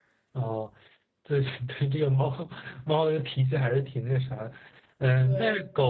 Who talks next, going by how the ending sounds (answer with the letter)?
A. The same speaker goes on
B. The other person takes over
A